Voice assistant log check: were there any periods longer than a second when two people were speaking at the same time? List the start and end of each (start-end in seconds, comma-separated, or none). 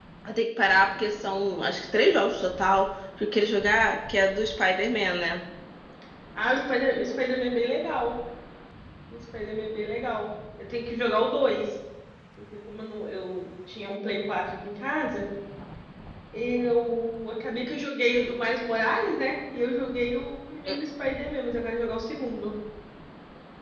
none